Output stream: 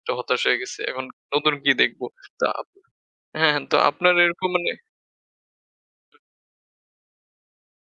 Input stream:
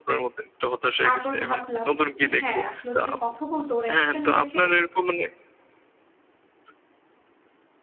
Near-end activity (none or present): present